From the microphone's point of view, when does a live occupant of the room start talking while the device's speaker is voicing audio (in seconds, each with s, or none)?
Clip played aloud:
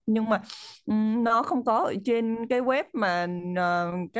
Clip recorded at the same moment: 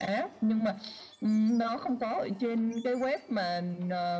none